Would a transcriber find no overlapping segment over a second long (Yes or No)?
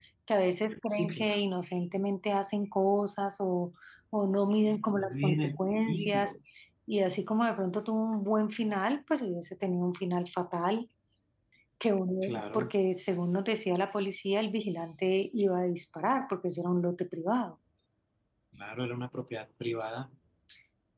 No